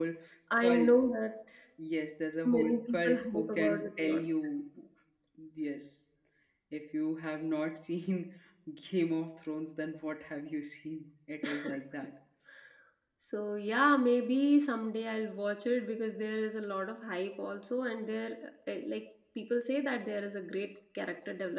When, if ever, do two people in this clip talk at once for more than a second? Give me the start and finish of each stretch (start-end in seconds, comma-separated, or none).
2.5-4.2